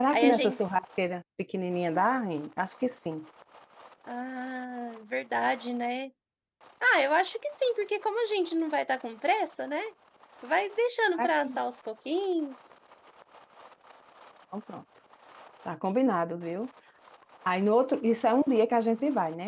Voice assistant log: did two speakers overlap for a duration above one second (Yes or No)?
No